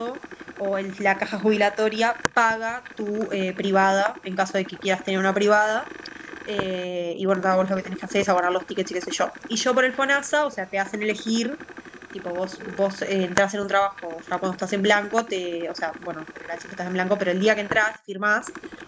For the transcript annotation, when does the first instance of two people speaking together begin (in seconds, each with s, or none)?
none